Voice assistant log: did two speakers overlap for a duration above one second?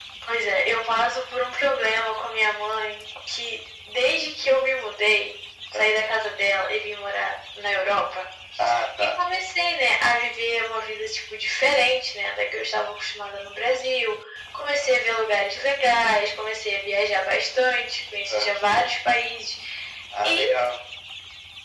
No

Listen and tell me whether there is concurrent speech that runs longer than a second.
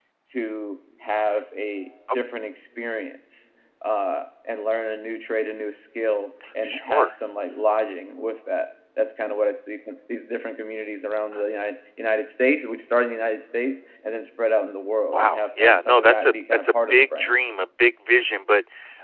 Yes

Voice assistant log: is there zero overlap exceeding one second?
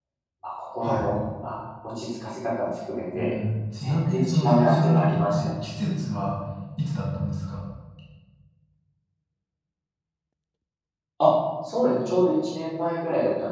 No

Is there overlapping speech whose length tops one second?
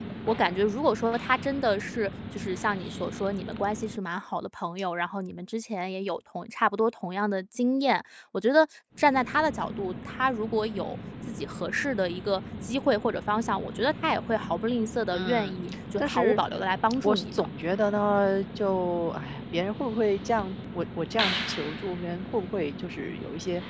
No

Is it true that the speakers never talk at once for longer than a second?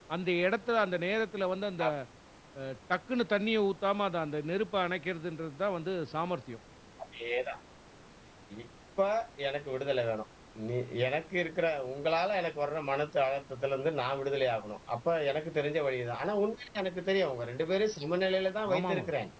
Yes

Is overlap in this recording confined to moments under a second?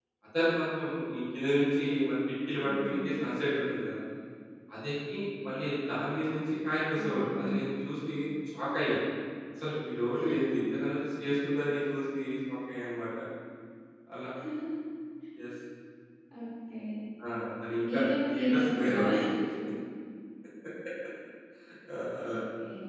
No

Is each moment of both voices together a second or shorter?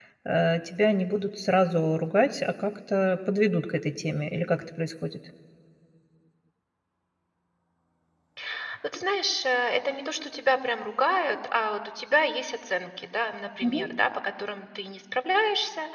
Yes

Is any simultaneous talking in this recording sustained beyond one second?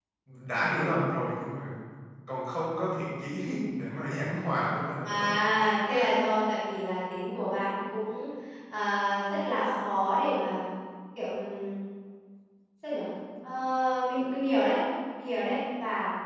No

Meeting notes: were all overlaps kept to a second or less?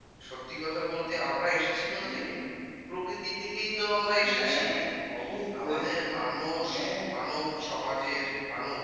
Yes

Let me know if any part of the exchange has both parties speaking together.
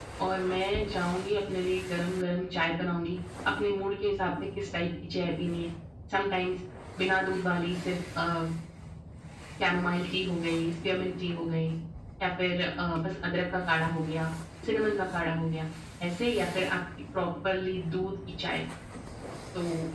No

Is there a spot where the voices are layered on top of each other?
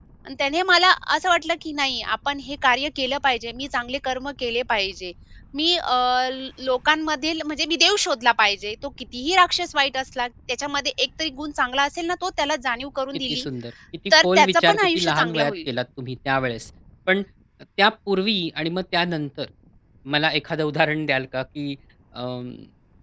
Yes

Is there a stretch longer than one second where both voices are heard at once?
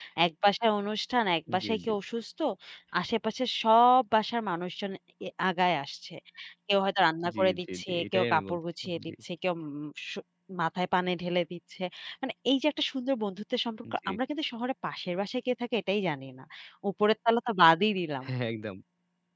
Yes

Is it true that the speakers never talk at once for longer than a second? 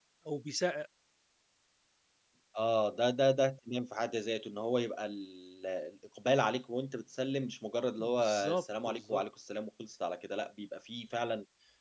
No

